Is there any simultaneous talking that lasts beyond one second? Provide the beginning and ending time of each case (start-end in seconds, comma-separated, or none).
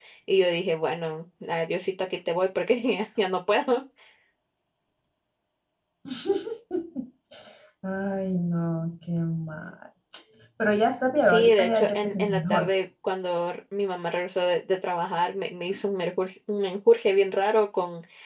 11.3-12.7